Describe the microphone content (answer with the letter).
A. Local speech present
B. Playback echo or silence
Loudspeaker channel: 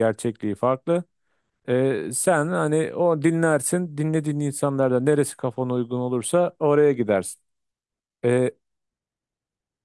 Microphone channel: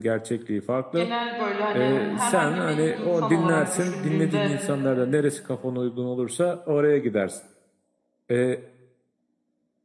A